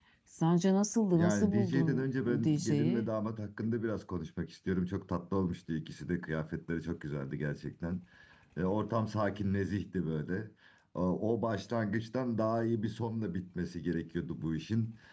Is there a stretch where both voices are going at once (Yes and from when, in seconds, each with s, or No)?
Yes, from 1.1 s